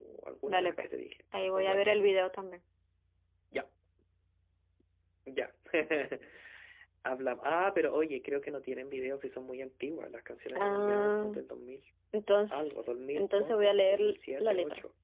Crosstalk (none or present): present